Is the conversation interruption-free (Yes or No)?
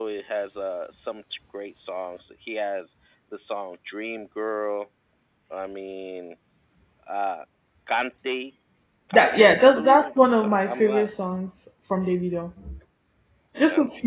No